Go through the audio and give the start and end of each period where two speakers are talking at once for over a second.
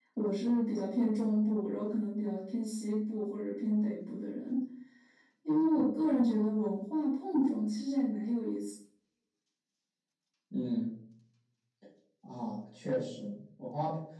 none

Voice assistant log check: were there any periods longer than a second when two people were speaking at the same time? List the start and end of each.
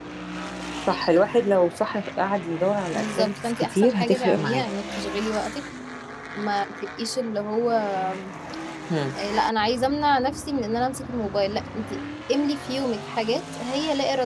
2.9-4.7

